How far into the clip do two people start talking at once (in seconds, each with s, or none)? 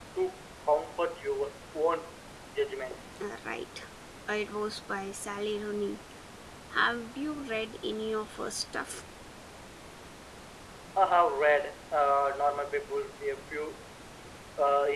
none